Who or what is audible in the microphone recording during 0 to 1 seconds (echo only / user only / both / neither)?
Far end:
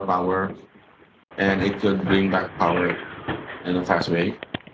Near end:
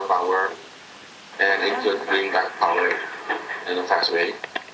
echo only